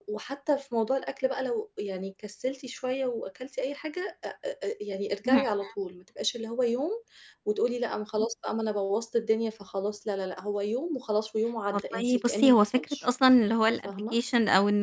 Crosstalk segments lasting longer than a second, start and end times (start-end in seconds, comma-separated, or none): 11.7-13.1